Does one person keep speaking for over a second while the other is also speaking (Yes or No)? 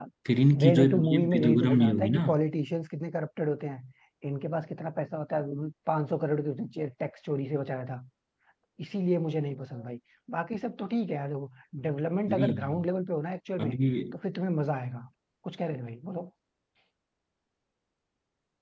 Yes